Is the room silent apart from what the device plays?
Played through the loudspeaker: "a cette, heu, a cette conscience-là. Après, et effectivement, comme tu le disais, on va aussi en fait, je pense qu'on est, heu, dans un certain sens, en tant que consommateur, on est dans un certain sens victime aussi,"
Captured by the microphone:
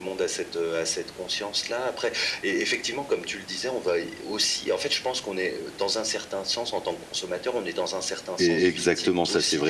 No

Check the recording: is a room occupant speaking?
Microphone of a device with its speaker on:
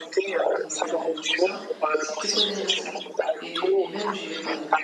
Yes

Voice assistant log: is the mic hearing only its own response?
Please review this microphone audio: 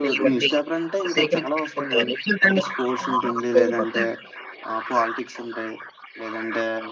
No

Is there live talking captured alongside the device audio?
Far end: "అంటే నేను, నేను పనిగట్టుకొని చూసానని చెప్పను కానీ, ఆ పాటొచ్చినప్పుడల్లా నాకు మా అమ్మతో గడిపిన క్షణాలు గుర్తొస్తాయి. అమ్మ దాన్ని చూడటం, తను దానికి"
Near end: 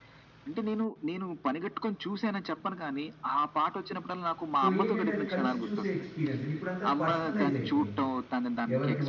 Yes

